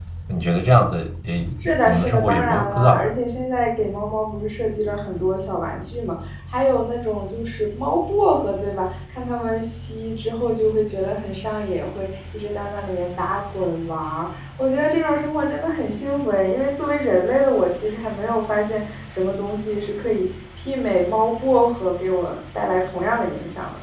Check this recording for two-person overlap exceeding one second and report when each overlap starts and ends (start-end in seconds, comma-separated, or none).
1.6-3.1